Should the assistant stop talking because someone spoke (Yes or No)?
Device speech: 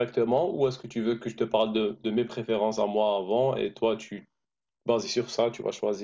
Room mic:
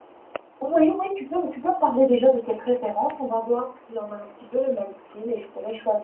Yes